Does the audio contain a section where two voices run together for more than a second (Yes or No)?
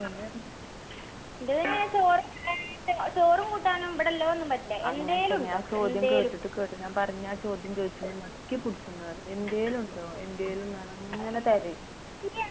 Yes